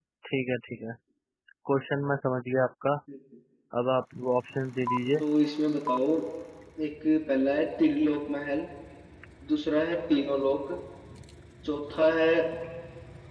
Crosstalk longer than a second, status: none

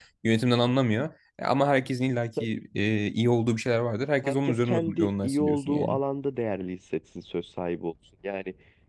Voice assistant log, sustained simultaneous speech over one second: present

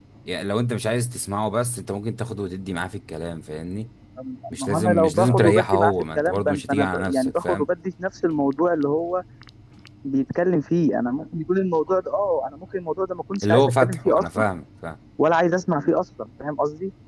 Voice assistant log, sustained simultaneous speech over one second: present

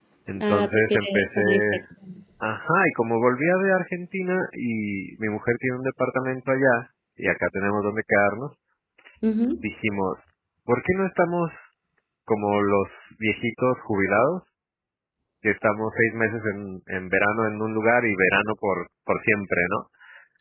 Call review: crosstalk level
present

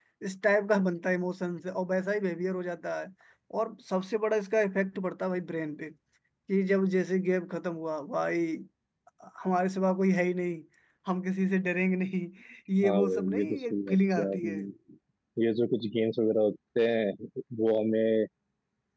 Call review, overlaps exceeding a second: present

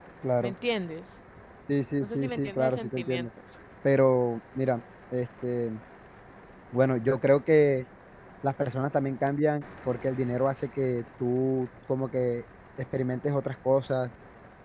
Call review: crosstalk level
present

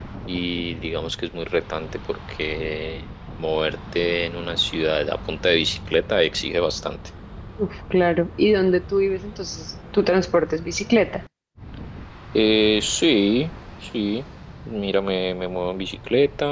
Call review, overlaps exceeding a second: none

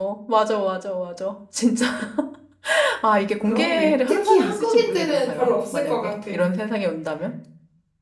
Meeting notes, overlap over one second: present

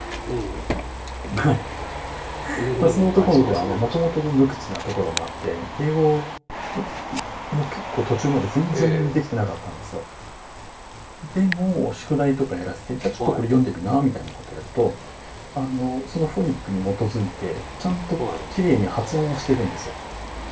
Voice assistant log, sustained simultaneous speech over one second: present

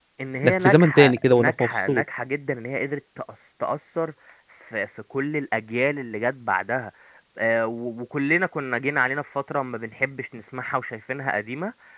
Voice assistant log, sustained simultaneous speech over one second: present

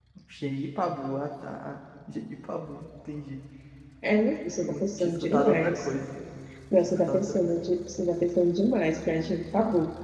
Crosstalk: present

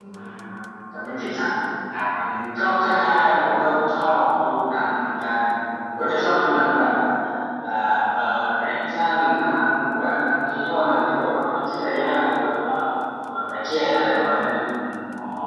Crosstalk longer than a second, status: none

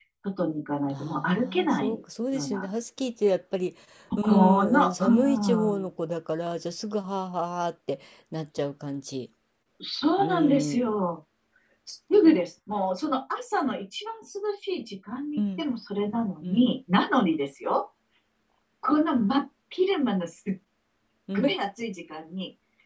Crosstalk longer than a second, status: present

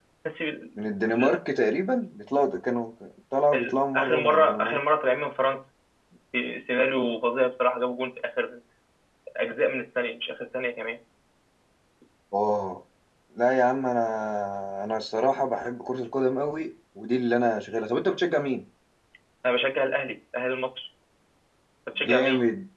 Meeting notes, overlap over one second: present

